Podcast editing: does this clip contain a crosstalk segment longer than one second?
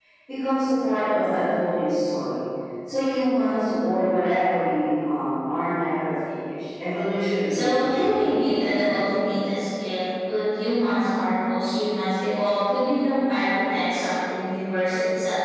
Yes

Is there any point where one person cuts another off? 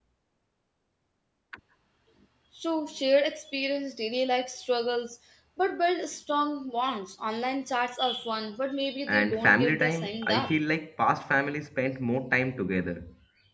Yes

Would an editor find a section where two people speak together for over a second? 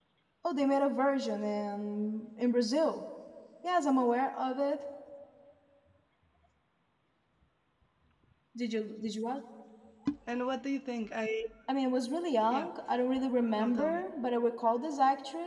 No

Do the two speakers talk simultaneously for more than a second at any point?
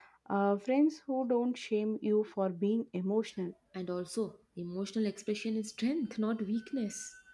No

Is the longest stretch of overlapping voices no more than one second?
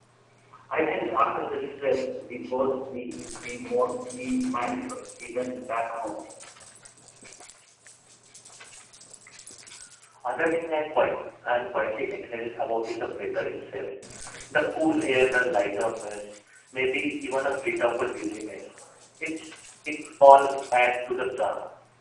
Yes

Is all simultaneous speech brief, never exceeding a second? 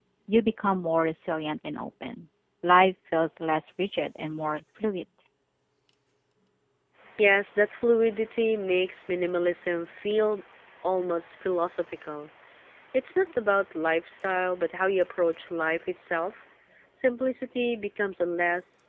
Yes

